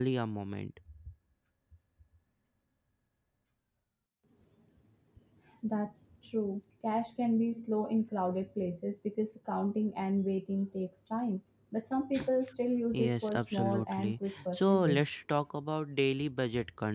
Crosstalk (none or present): present